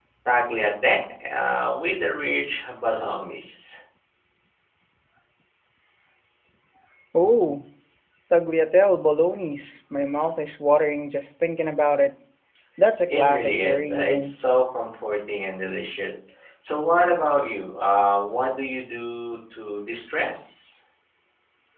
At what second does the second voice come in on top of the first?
13.1 s

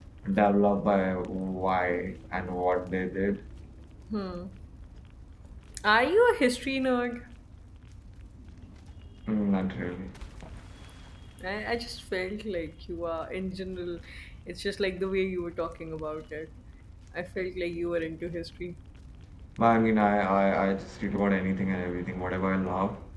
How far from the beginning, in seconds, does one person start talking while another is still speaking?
none

